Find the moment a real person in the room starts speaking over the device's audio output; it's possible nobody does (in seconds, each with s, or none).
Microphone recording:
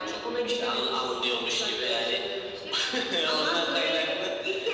none